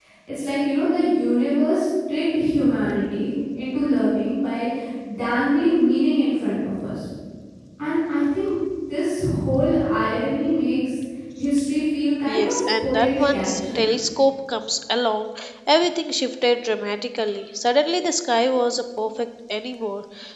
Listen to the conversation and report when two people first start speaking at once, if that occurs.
12.3 s

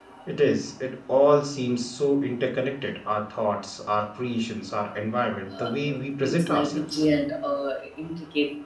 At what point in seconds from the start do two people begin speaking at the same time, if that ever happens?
5.5 s

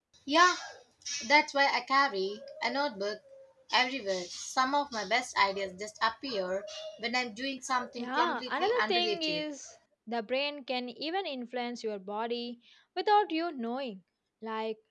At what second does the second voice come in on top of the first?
8.0 s

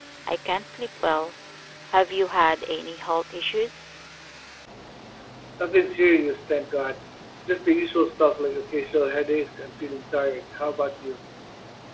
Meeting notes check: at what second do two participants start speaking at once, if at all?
none

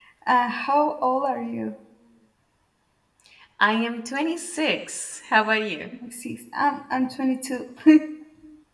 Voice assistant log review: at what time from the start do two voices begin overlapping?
none

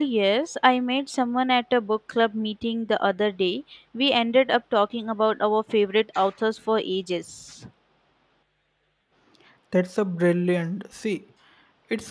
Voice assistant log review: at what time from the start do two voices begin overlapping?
none

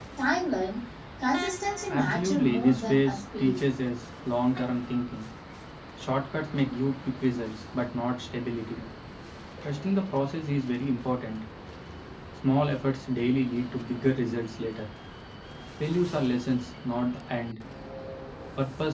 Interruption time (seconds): 1.9 s

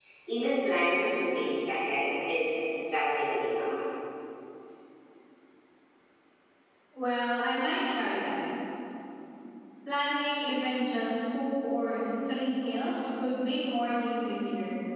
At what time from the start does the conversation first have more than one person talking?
none

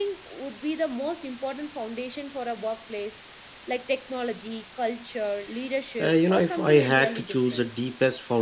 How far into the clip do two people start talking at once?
6.0 s

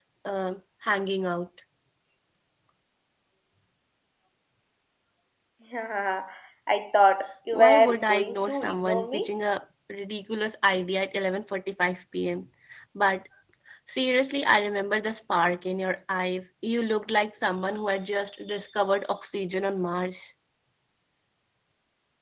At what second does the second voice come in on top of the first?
7.5 s

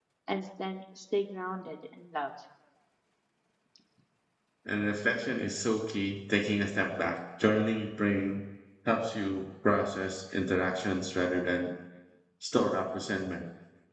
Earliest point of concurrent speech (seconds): none

